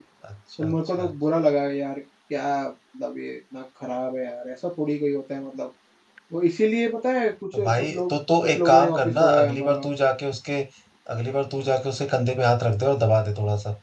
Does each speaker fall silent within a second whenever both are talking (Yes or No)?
No